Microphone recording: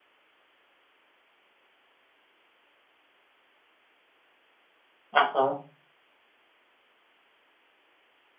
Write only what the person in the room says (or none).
อ่ะฮะ